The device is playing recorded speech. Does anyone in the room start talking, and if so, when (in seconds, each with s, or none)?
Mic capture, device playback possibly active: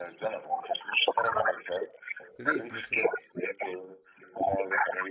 2.4 s